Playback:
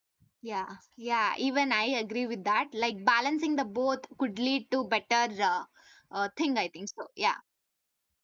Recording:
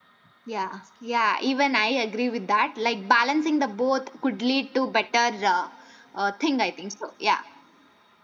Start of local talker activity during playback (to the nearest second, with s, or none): none